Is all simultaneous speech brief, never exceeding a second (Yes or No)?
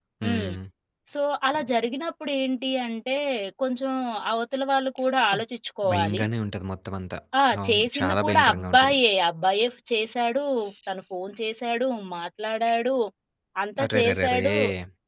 No